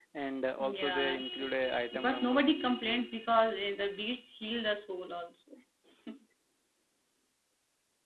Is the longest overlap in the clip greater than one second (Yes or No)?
Yes